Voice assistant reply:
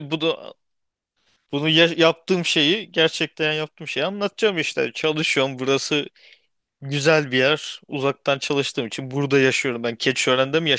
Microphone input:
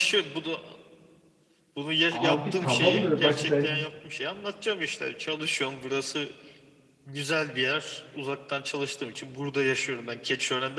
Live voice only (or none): abi tamam da bak sen